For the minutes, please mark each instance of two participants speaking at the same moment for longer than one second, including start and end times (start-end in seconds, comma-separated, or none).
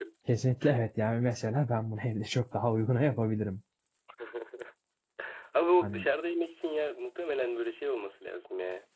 none